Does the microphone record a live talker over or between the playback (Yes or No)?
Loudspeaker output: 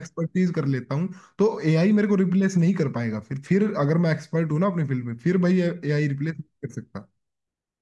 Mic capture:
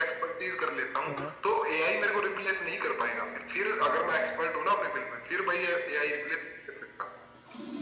Yes